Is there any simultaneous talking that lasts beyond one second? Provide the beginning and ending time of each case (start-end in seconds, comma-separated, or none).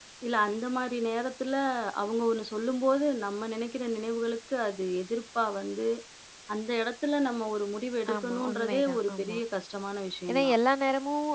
8.2-9.4